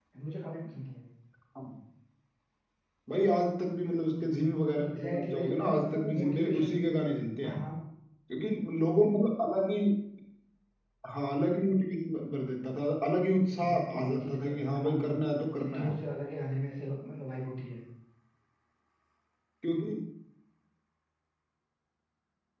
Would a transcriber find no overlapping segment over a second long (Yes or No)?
No